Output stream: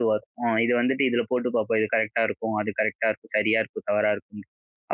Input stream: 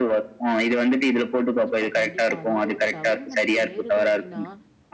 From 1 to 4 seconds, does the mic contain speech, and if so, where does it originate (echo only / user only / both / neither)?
both